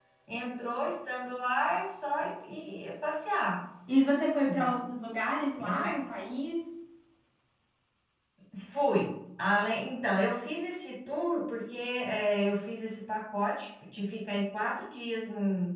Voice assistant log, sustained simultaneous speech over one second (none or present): none